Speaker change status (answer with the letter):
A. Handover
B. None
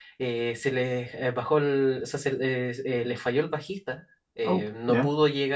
B